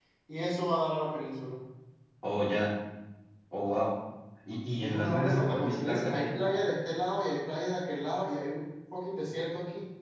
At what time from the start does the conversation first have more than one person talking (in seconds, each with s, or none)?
4.8 s